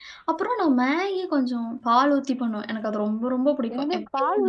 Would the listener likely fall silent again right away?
No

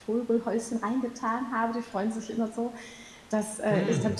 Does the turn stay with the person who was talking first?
Yes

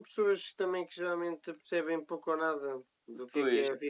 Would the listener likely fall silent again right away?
Yes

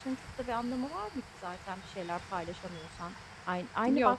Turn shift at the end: No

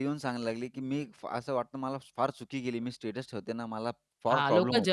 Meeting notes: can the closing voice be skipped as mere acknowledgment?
No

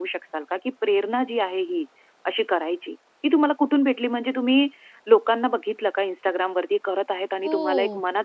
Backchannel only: No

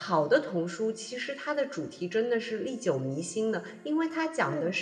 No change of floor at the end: Yes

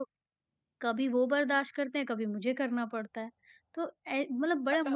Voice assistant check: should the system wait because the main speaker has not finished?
Yes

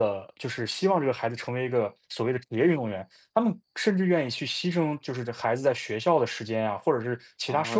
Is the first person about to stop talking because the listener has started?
Yes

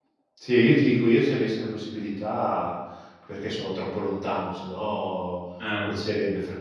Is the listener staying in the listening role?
Yes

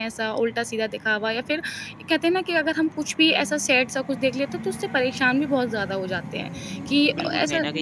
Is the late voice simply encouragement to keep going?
No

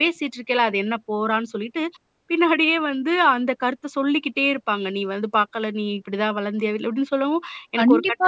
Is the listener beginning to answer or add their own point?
Yes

